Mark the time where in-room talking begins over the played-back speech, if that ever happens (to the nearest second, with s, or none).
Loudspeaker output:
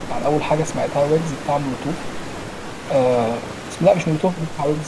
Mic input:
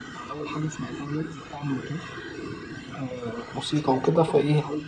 4 s